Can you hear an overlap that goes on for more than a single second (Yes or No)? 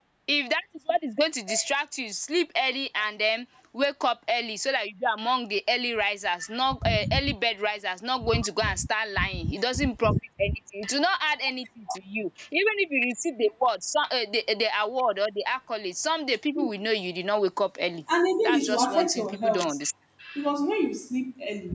Yes